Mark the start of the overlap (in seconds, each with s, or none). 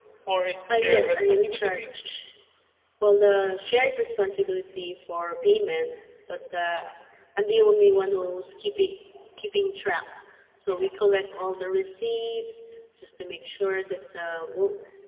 0.7 s